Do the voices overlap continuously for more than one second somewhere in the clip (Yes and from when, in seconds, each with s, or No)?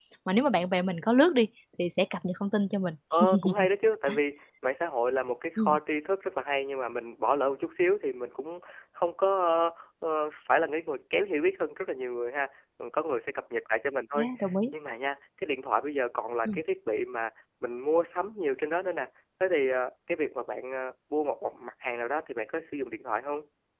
No